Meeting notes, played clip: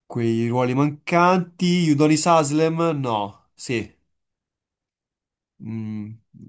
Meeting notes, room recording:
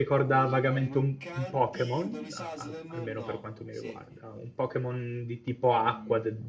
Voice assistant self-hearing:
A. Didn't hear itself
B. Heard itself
B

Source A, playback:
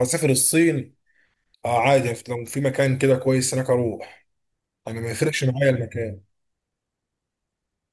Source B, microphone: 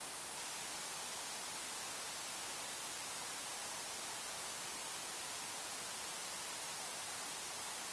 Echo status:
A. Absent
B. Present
A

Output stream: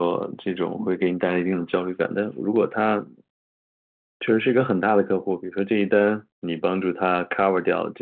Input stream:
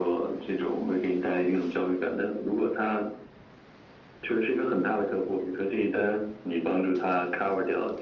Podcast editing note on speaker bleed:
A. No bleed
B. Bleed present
B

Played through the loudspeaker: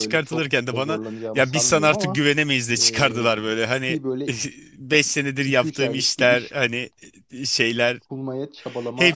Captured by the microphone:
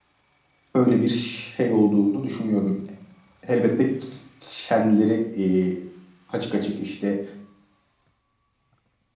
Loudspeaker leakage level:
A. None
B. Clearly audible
A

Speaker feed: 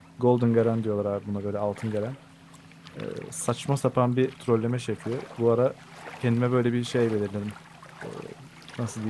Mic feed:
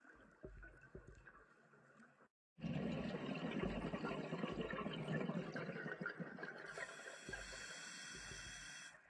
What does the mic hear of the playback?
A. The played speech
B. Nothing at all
B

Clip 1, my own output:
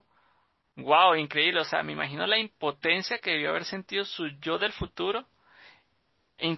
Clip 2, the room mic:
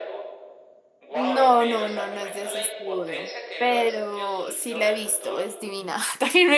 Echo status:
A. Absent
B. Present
B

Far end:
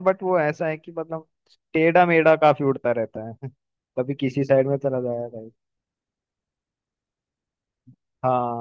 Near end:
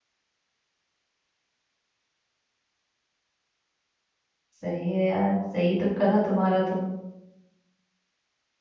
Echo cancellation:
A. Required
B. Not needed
B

